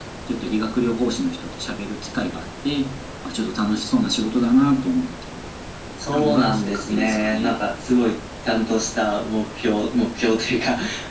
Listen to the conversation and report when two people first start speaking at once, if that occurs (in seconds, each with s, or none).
6.1 s